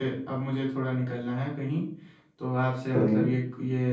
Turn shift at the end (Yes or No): No